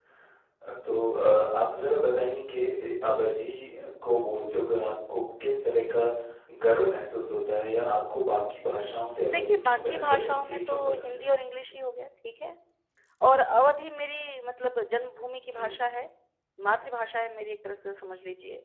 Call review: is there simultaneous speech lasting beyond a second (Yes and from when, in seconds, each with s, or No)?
Yes, from 9.3 s